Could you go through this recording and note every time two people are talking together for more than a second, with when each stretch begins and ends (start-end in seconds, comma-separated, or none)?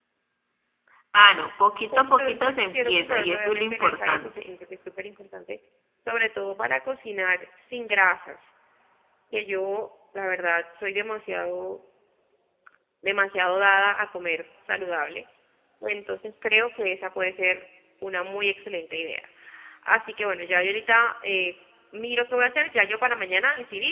1.9-4.5